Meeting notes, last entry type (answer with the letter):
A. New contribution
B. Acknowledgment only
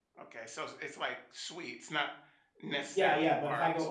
A